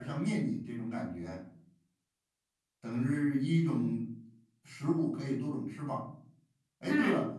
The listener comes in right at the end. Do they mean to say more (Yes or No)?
No